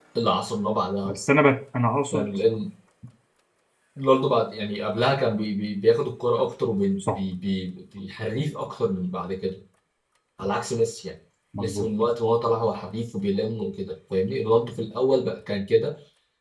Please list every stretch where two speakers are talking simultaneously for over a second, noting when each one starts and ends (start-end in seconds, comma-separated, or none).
none